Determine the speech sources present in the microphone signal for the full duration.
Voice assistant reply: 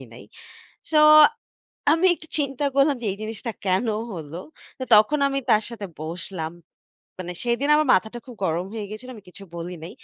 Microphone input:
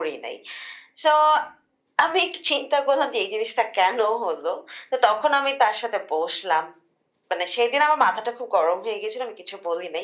echo only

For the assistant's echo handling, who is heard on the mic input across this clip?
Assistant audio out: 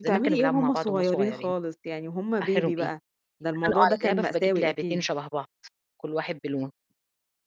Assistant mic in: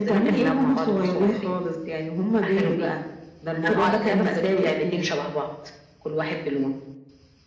echo only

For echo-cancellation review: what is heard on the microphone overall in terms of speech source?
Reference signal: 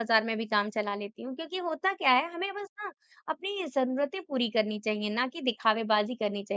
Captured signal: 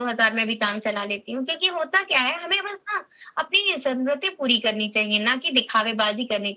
echo only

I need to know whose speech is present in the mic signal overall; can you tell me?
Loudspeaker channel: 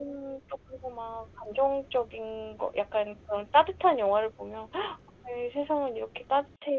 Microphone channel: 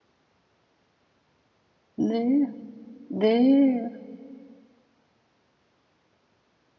user only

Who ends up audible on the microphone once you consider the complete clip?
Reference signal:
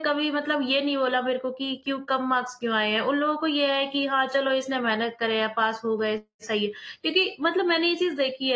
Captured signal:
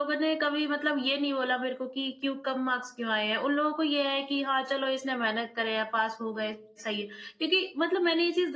echo only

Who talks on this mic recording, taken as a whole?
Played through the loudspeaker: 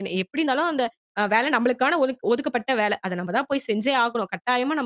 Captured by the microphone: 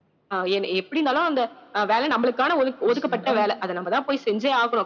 both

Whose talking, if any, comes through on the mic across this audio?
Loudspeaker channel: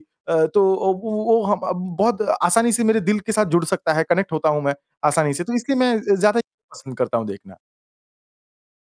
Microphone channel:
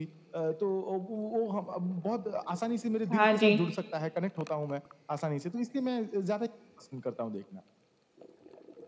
both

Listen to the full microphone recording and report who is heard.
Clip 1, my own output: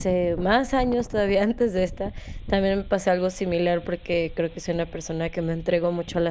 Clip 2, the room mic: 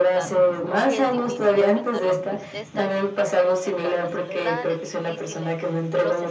both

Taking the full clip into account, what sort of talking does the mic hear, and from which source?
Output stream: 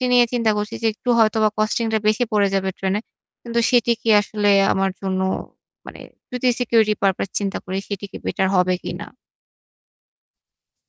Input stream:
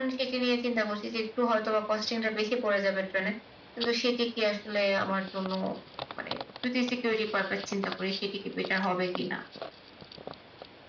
echo only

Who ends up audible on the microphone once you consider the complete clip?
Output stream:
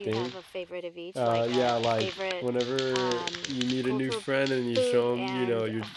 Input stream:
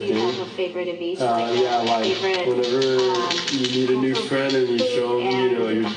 echo only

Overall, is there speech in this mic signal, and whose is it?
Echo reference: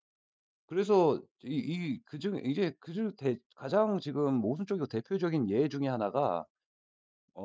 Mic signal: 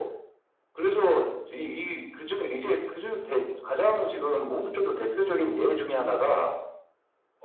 echo only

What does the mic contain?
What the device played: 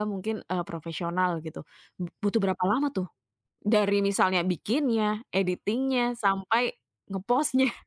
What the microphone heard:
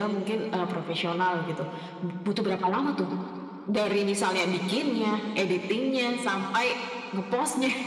echo only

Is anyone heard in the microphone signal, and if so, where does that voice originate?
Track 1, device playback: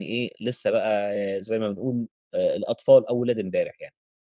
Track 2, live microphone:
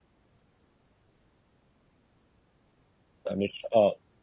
user only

